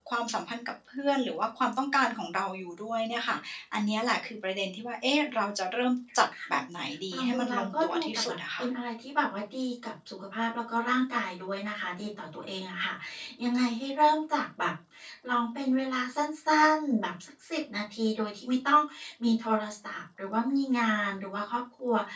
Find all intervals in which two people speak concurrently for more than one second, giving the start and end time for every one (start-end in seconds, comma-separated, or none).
7.1-8.7